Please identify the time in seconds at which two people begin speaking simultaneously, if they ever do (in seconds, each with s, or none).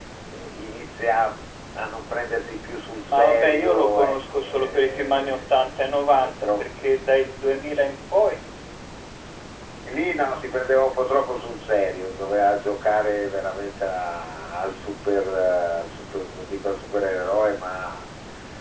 3.1 s